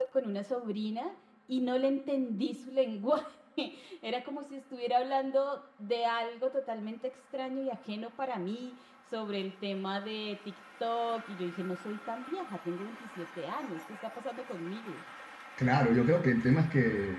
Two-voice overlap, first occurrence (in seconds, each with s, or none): none